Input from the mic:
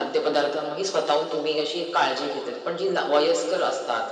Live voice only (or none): none